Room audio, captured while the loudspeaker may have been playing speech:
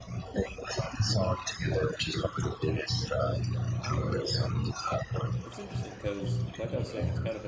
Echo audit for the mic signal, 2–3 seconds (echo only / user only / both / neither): echo only